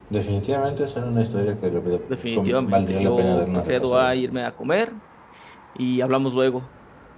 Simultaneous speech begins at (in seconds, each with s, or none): 2.3 s